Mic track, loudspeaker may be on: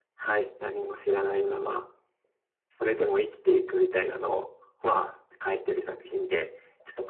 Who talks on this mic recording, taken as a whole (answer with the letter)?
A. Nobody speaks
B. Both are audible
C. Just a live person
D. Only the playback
D